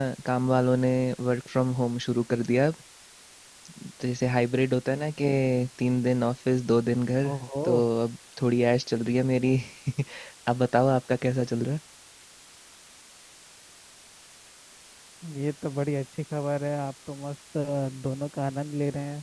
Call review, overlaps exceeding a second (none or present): none